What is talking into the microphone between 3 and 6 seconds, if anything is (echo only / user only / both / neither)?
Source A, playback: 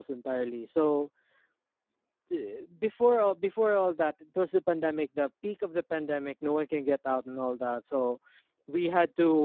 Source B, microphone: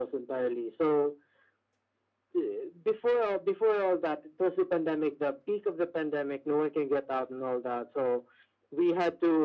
echo only